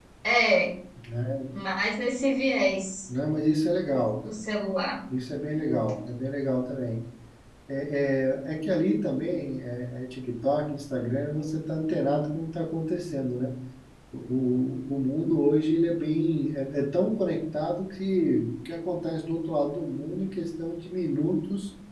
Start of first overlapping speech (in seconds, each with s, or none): none